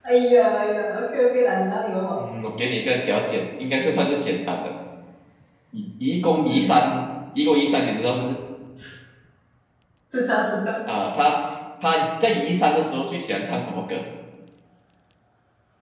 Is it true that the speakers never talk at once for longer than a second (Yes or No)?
Yes